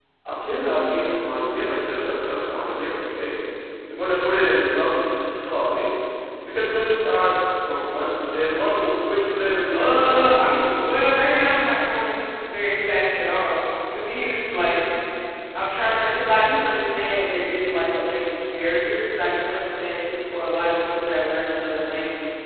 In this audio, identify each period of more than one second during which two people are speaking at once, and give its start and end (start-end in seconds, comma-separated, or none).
9.7-11.0